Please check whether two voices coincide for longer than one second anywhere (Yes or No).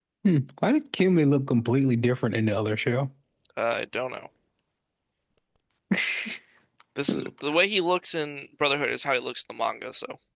No